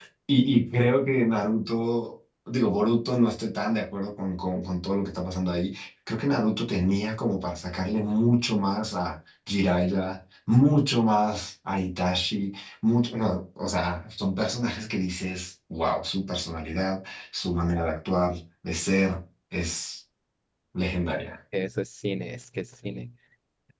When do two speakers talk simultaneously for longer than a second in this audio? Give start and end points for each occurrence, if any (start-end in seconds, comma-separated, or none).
none